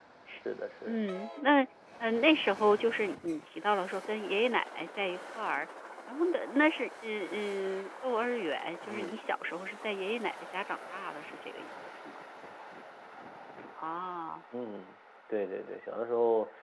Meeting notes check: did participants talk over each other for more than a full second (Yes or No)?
No